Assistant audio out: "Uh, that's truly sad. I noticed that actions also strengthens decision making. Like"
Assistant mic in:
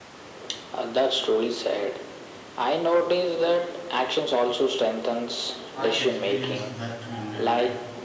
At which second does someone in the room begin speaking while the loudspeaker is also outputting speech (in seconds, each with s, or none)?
5.8 s